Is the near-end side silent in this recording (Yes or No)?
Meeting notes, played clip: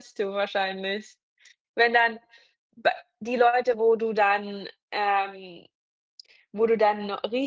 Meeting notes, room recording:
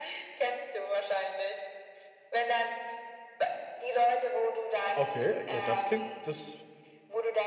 No